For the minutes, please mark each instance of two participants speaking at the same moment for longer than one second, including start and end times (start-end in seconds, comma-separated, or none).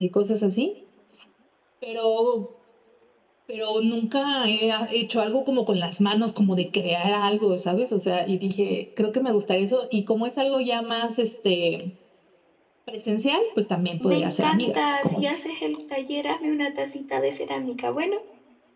14.0-15.4